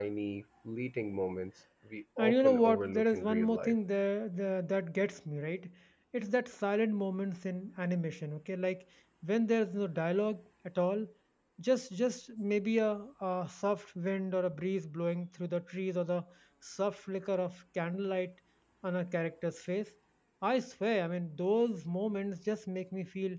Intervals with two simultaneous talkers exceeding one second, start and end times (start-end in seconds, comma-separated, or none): 2.2-3.8